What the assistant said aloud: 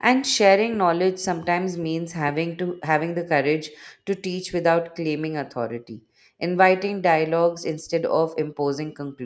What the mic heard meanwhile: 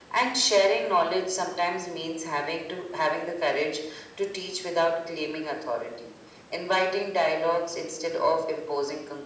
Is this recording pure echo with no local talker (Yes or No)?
Yes